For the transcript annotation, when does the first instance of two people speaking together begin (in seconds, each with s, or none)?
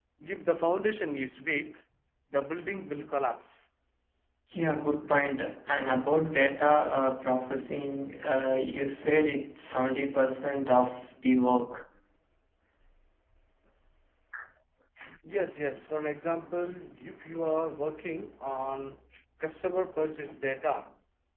none